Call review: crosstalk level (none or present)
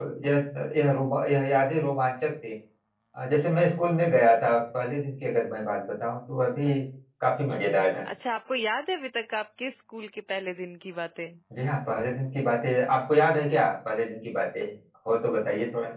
none